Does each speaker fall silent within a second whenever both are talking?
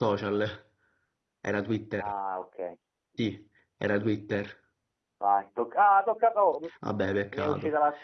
Yes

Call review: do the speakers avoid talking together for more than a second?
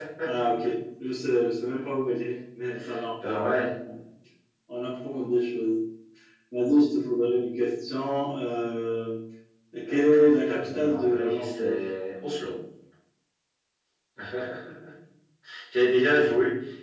No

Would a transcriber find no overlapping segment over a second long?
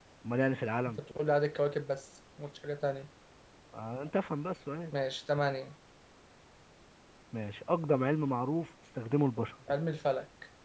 Yes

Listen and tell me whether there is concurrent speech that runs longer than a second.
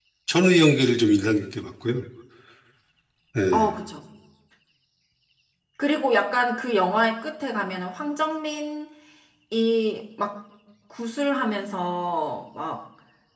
No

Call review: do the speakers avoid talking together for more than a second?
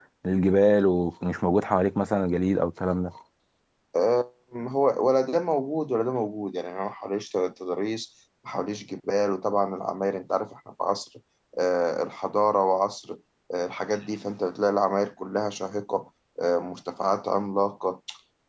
Yes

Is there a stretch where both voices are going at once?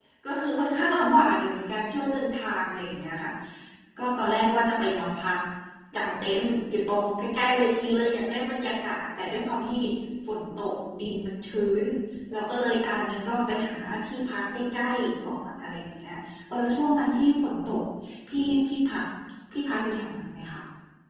No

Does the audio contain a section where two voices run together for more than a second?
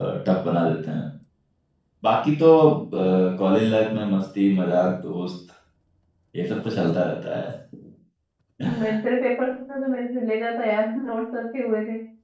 No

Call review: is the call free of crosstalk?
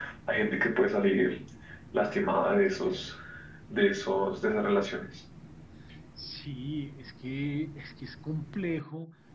Yes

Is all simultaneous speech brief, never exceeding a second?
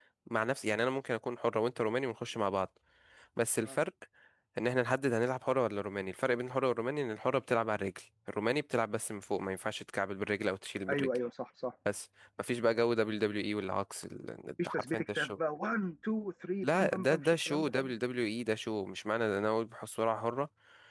No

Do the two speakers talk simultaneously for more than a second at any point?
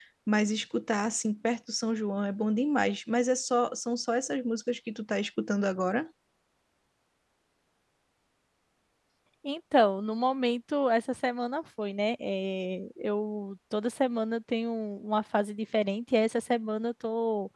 No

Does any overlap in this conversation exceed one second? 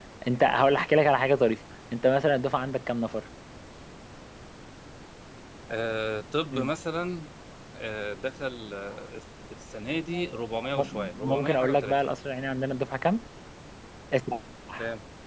Yes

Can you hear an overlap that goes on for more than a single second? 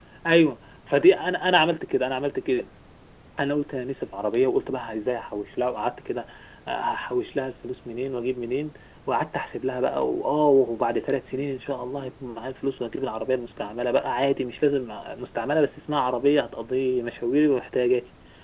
No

